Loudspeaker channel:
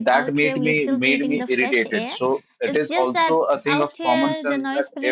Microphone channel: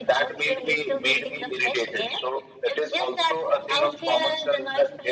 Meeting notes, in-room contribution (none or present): none